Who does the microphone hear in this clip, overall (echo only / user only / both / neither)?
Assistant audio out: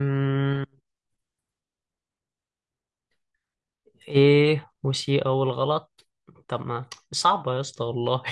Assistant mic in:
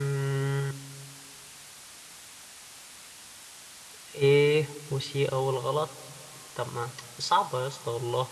echo only